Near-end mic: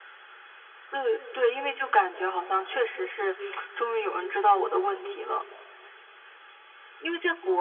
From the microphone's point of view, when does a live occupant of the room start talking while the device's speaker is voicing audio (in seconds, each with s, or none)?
none